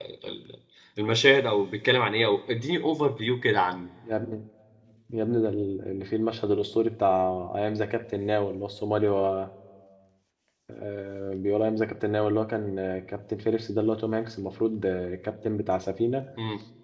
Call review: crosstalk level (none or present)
none